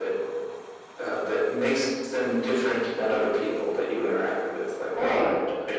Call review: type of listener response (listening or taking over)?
listening